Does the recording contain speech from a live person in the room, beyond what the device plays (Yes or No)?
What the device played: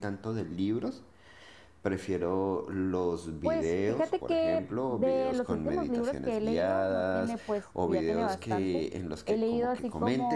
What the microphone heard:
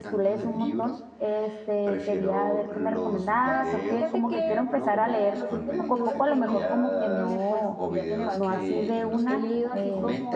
Yes